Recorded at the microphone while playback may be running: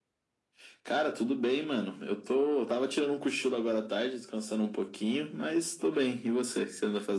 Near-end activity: none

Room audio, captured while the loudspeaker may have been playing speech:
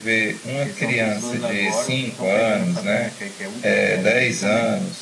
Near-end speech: present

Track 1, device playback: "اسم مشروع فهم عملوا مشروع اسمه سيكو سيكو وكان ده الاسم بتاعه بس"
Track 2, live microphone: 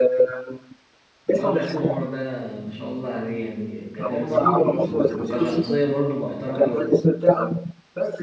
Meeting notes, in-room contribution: present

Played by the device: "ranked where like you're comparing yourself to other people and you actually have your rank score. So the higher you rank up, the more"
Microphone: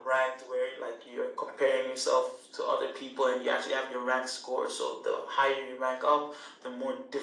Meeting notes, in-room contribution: none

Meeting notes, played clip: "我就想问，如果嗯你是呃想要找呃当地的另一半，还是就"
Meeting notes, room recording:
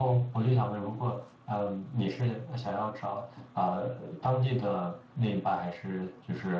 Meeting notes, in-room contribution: none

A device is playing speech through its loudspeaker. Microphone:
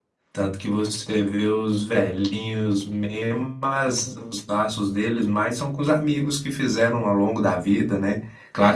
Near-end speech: present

